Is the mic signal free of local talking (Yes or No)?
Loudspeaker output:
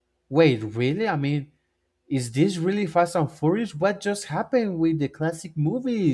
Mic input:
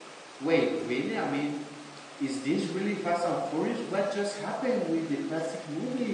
Yes